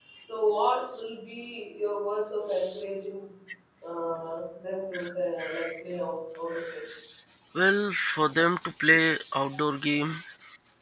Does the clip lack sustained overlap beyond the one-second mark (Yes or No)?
Yes